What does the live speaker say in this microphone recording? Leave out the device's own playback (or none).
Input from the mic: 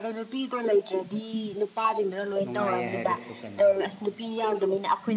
ꯅꯨꯡꯉꯥꯏꯌꯦ ꯍꯥꯏꯔꯁꯨ ꯀꯟꯅꯥ